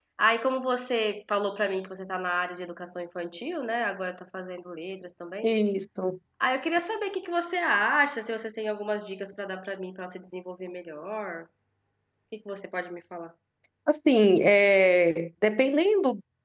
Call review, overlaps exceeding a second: none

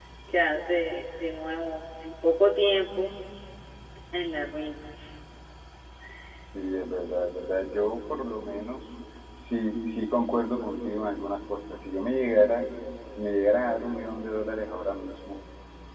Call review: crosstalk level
none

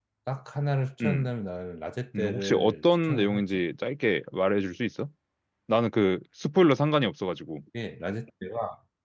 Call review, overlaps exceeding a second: present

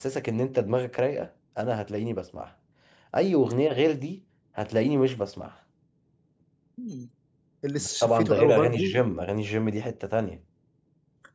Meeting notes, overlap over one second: present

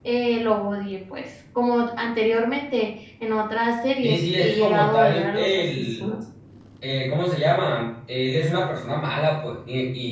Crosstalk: present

